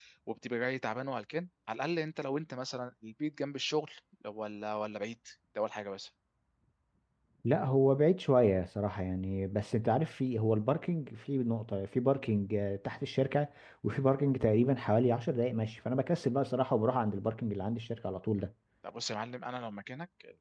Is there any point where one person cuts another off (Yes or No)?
No